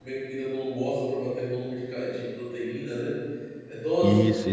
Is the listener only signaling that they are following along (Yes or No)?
No